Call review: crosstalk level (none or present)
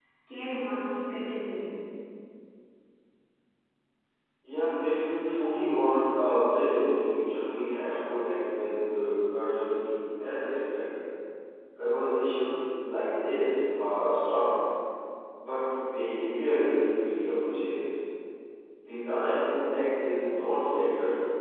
none